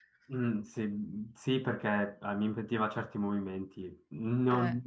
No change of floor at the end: Yes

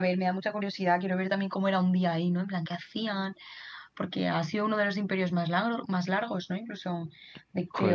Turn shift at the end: No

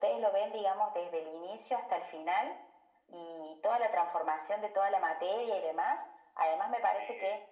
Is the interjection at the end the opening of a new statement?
No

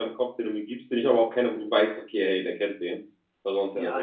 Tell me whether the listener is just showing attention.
No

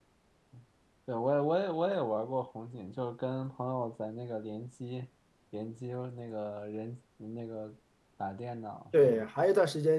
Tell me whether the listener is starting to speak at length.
Yes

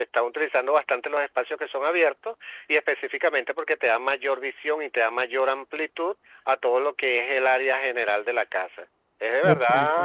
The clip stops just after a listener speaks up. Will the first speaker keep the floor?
Yes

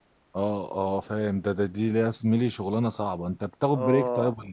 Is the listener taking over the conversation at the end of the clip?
Yes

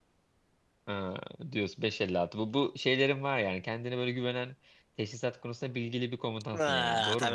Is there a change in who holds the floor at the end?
Yes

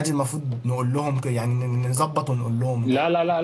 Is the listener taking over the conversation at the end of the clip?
Yes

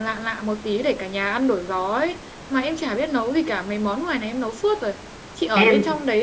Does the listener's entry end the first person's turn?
No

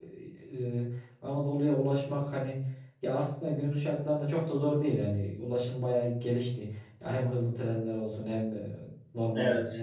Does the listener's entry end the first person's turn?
No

